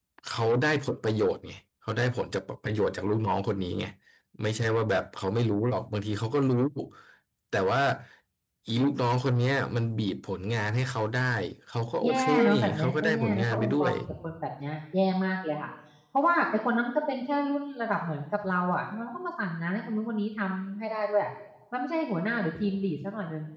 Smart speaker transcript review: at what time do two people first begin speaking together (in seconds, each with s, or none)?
12.0 s